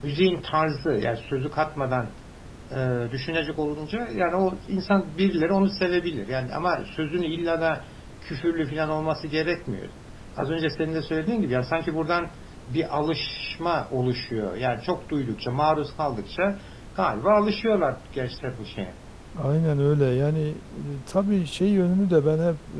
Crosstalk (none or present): none